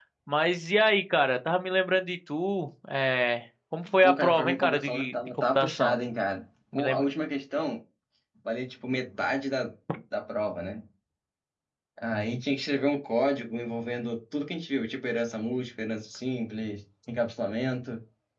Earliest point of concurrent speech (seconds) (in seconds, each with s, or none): 4.0 s